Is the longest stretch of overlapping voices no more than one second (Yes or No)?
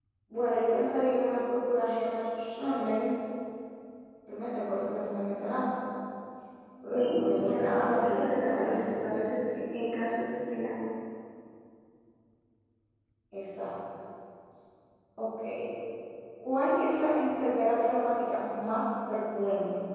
No